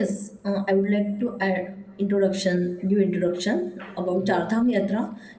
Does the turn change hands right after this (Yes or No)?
No